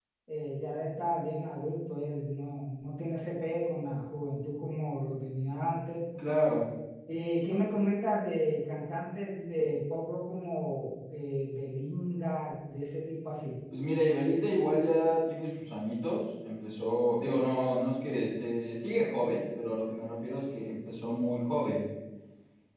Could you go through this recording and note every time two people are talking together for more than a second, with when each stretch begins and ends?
none

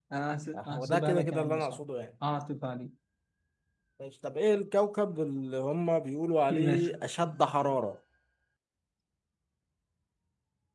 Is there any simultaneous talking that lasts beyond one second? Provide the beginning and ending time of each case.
0.5-1.8

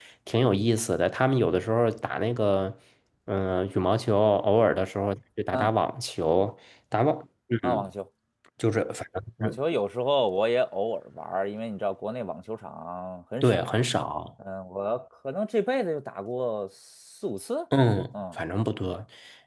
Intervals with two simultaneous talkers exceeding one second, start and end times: none

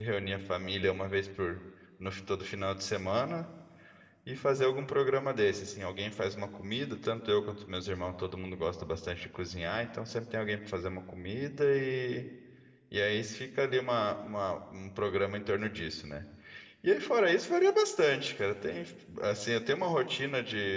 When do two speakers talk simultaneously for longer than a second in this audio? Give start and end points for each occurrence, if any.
none

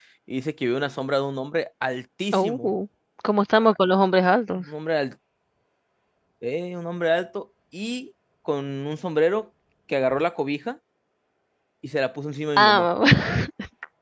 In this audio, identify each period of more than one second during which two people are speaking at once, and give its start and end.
none

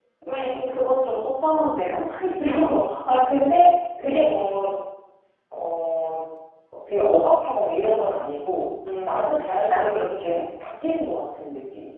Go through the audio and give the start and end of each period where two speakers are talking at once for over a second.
9.0-10.4

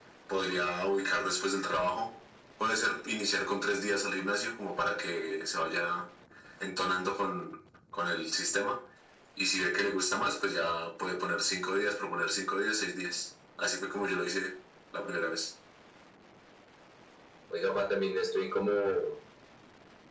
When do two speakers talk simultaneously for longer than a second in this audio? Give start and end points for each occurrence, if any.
none

